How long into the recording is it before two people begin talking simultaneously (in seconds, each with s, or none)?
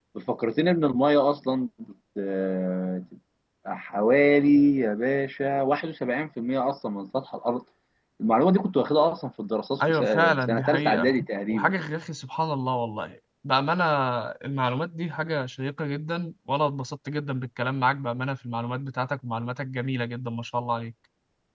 9.8 s